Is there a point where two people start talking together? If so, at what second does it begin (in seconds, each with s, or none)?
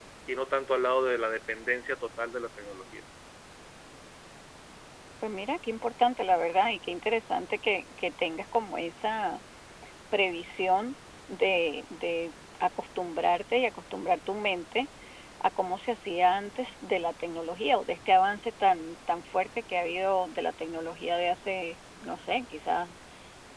none